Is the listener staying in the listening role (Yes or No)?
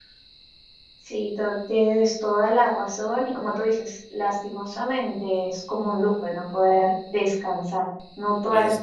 Yes